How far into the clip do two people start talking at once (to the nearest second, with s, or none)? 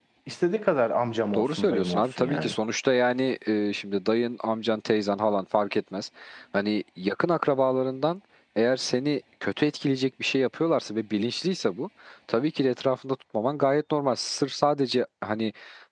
1 s